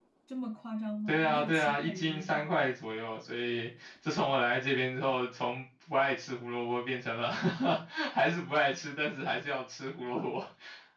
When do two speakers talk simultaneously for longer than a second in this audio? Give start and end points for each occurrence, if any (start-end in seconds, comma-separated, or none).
1.1-2.5